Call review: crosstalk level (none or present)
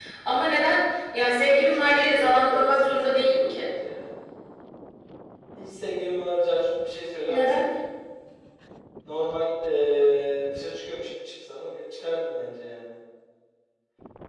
present